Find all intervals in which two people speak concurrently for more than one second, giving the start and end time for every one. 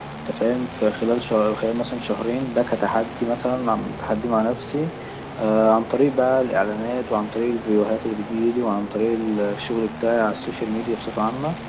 none

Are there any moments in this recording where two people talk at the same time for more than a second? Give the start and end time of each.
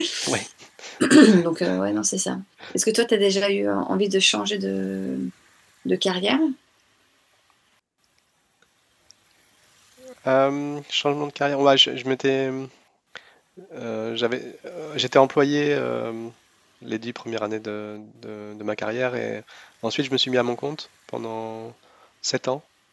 none

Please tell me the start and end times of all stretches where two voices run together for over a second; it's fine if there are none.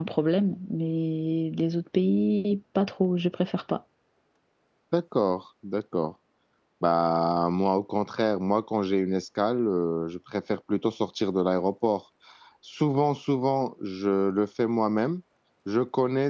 none

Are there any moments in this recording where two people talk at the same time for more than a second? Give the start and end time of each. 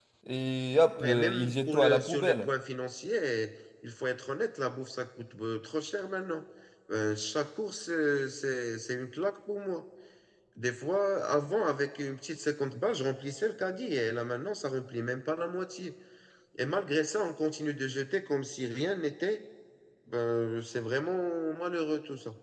1.0-2.5

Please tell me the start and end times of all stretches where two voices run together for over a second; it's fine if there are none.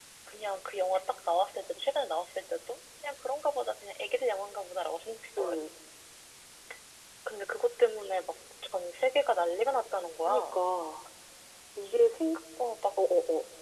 none

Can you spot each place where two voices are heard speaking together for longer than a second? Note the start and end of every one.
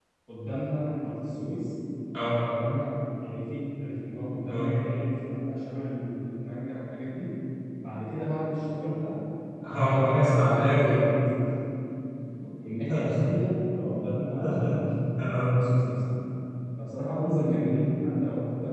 9.8-11.0

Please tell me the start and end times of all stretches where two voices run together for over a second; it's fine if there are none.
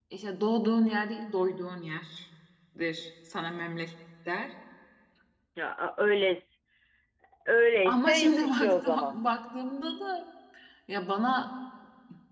7.8-9.1

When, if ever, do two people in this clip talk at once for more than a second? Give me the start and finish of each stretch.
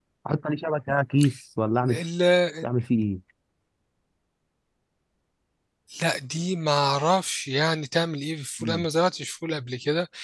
none

